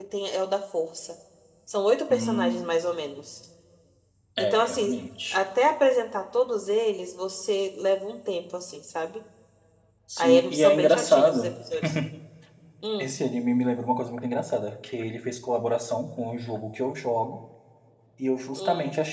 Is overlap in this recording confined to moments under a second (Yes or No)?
No